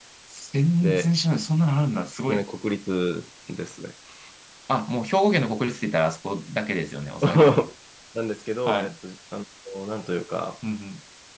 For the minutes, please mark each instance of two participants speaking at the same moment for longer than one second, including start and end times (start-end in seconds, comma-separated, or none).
none